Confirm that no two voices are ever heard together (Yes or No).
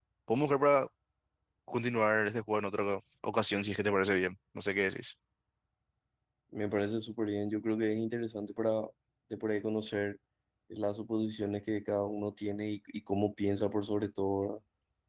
Yes